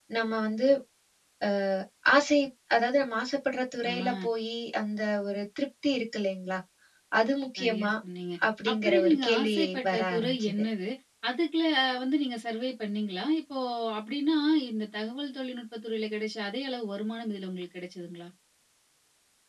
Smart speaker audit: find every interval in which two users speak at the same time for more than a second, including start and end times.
8.7-10.5

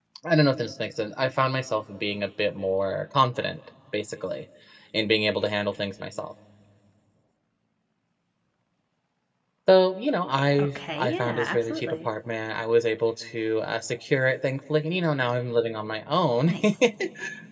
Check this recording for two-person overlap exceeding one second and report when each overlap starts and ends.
10.6-12.1

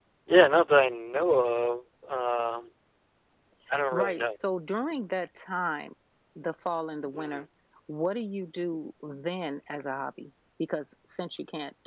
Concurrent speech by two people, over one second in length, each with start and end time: none

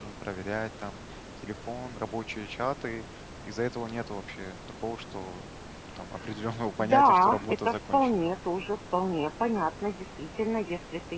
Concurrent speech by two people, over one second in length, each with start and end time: 6.8-8.3

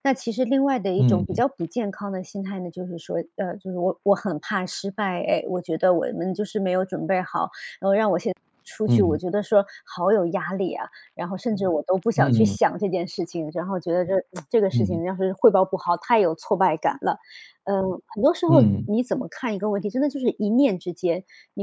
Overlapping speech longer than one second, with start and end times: none

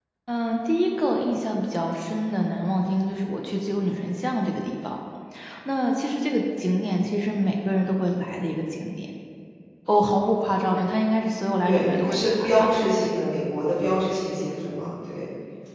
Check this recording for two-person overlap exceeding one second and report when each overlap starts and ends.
11.6-13.1

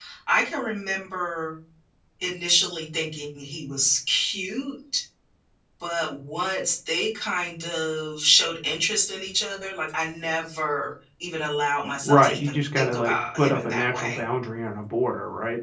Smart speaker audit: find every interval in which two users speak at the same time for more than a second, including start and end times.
12.0-14.2

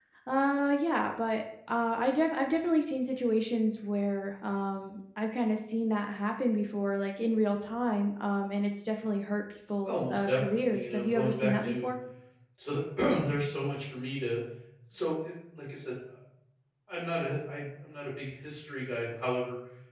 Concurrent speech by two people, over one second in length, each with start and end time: 9.8-11.9

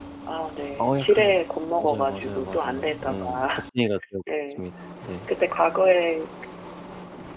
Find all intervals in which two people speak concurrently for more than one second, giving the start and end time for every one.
1.8-3.4

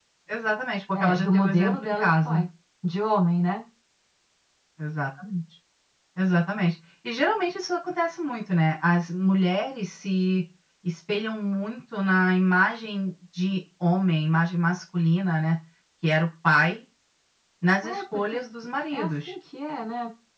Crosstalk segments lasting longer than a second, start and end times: 0.9-2.4

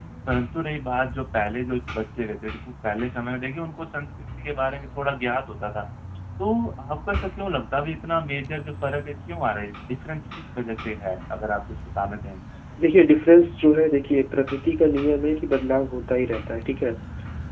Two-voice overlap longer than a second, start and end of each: none

